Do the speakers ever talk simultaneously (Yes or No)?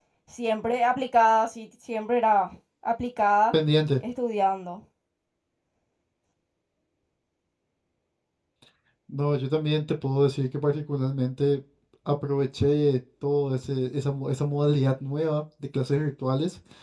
No